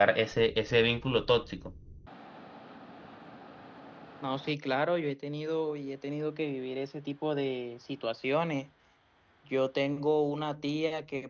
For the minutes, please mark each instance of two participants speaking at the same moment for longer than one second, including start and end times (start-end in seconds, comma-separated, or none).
none